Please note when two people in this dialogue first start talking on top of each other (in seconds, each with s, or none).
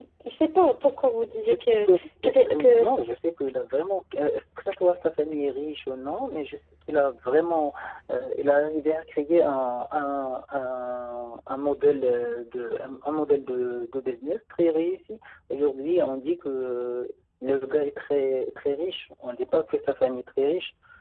1.3 s